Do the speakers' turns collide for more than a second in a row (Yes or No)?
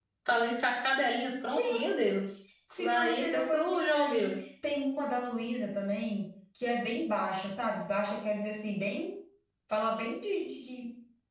Yes